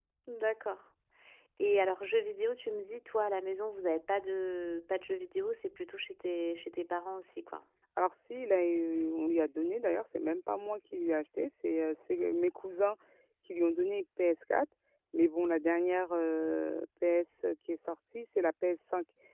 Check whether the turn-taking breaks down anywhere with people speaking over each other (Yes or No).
No